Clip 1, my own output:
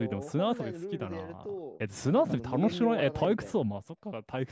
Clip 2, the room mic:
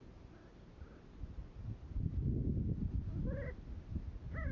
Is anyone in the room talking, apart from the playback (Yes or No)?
No